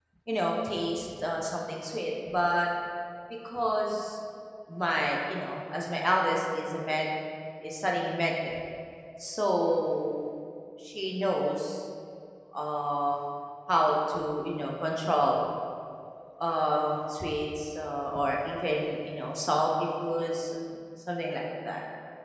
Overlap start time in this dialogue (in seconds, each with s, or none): none